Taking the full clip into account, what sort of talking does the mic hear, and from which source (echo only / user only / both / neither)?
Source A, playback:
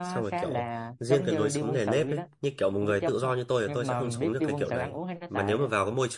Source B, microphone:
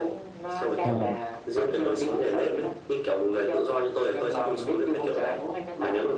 both